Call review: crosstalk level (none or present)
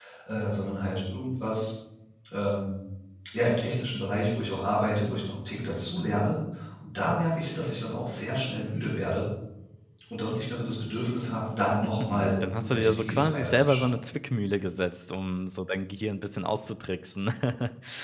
present